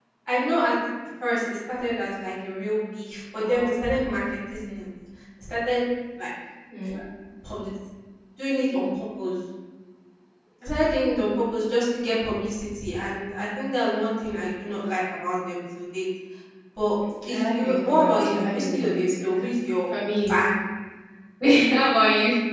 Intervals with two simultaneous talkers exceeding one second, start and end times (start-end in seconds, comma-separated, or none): 17.3-19.4